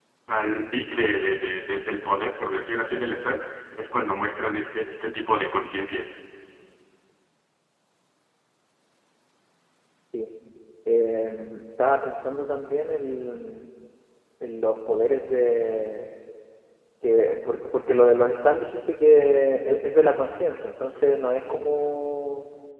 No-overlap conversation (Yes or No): Yes